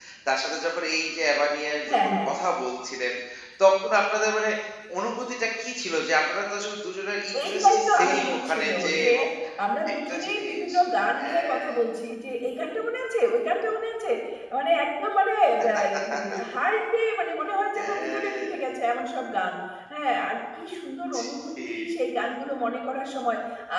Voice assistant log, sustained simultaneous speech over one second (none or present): present